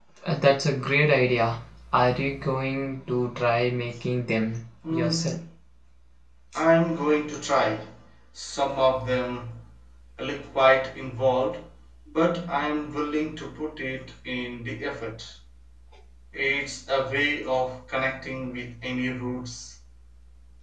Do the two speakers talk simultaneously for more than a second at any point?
No

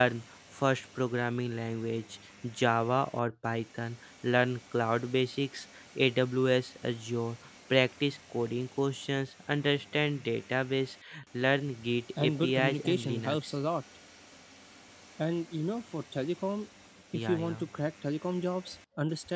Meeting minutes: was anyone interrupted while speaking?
Yes, from 12.2 s

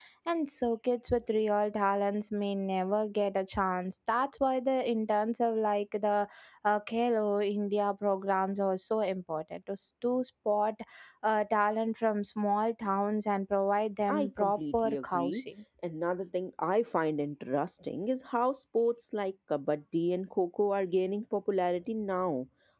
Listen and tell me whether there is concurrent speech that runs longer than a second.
Yes, from 14.1 s

